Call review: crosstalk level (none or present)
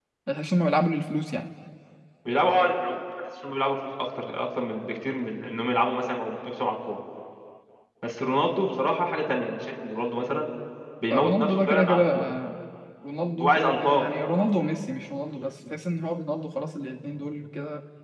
present